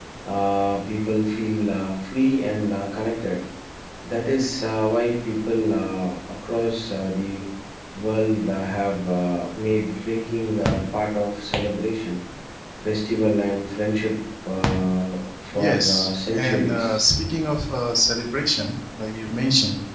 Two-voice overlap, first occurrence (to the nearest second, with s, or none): 16 s